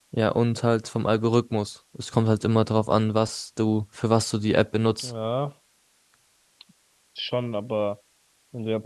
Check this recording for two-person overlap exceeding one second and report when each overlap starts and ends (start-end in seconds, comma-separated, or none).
none